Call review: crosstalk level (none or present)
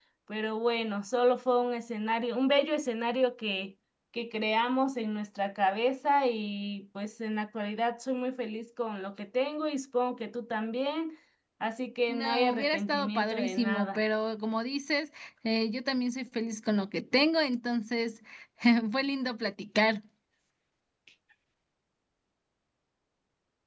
present